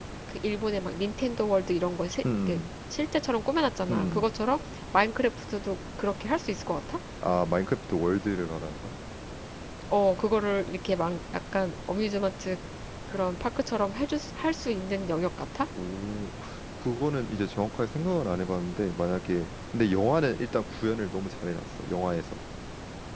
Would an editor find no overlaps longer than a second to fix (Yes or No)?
Yes